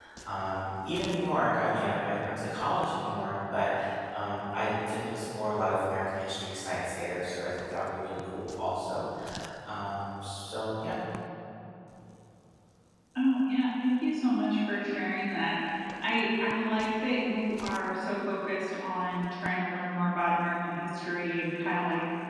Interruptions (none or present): none